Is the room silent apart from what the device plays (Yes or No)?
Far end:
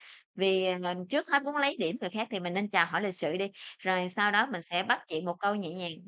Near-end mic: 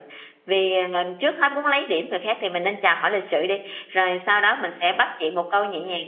Yes